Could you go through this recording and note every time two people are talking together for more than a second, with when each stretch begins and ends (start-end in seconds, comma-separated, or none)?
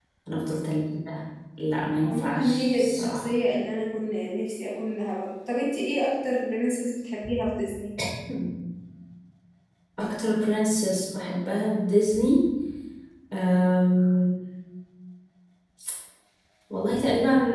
2.0-3.2